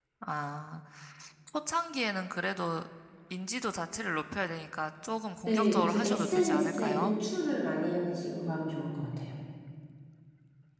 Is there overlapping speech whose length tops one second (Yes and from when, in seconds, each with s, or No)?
Yes, from 5.5 s